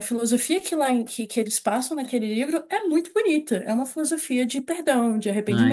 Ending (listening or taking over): taking over